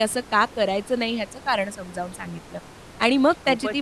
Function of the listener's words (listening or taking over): listening